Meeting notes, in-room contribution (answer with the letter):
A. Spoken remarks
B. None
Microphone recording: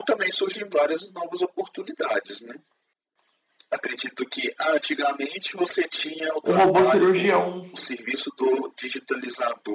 A